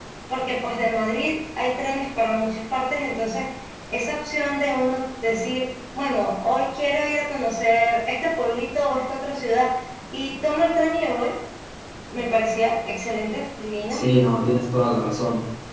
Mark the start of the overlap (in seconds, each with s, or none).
none